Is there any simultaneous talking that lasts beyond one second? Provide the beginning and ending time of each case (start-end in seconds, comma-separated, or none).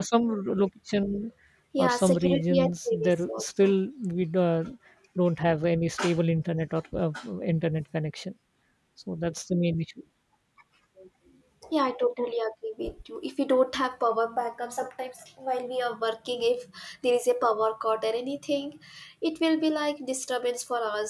1.8-3.7